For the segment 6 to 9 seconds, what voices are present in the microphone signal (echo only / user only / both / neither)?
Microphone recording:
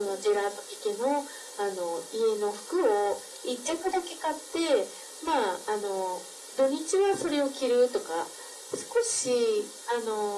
echo only